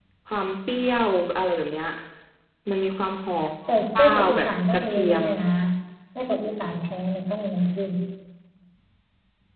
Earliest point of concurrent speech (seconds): 3.7 s

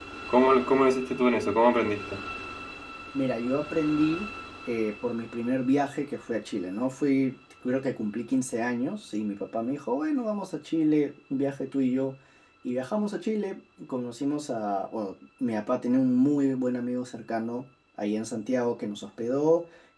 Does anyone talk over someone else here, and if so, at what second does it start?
none

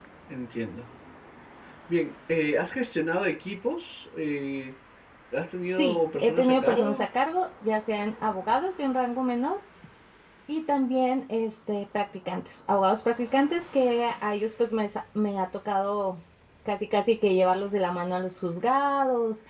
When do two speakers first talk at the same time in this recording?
5.8 s

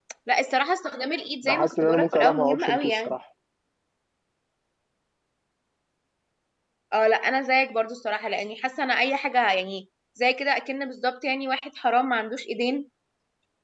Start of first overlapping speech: 1.4 s

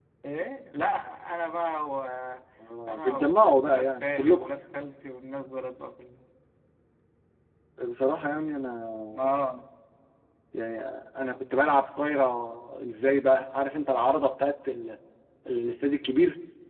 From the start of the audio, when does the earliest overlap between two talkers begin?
2.9 s

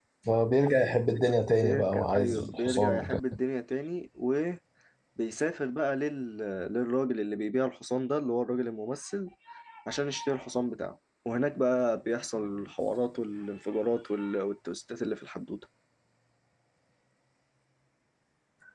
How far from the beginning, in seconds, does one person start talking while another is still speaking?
1.6 s

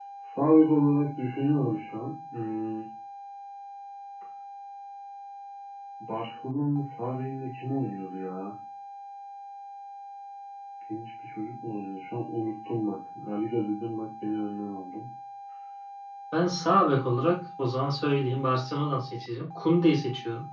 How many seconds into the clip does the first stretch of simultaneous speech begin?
none

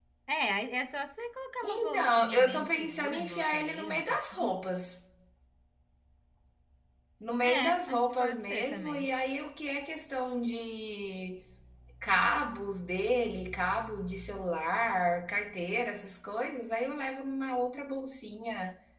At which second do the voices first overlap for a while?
1.6 s

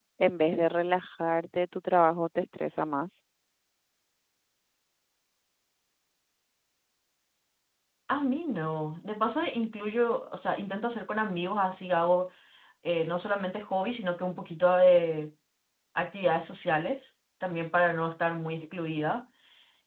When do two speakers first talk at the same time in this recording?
none

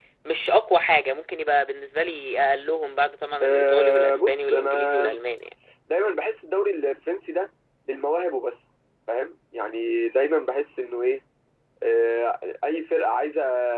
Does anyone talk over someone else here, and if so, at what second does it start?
3.4 s

